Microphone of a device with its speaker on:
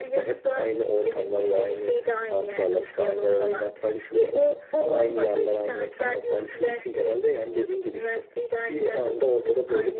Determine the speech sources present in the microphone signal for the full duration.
echo only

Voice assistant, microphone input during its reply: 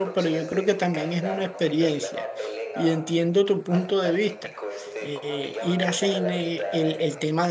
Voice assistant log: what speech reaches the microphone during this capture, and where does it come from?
both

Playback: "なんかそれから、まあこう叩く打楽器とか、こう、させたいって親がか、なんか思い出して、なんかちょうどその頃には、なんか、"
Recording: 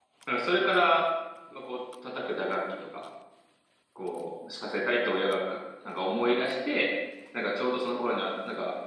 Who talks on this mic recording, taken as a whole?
echo only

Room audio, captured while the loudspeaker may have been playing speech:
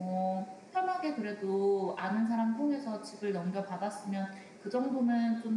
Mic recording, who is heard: echo only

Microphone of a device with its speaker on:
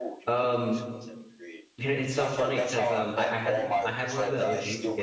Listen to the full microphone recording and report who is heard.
both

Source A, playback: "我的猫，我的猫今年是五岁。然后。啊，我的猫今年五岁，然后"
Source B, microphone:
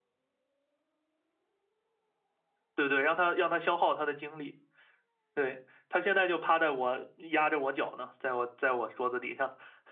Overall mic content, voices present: user only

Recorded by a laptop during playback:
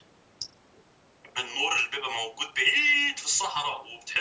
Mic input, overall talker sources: echo only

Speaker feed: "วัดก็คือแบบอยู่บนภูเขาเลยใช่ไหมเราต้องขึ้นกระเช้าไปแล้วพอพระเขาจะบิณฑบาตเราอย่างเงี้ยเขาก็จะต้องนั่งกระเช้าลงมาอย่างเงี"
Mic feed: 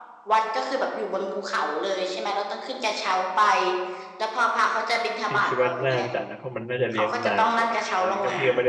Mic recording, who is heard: both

